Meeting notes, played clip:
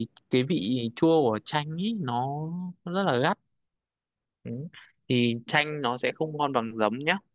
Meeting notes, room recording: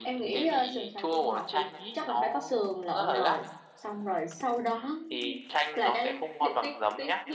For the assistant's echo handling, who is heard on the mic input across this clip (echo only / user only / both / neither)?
both